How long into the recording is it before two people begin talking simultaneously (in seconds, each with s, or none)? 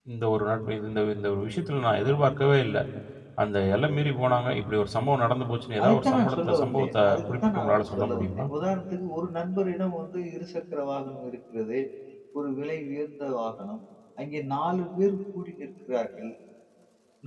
5.8 s